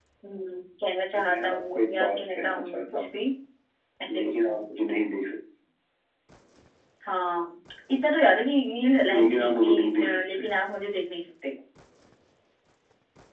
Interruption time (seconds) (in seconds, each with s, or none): 1.3 s